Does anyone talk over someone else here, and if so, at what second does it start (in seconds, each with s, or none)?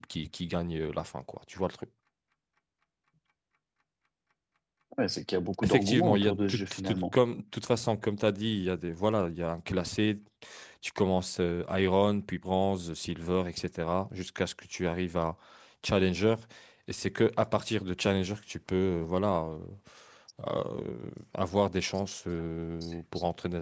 5.6 s